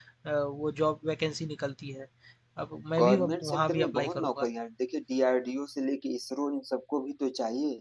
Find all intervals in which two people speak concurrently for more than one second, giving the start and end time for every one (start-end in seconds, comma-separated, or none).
3.0-4.5